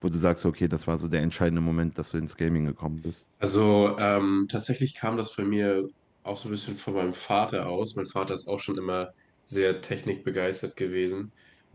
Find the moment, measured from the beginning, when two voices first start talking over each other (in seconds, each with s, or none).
none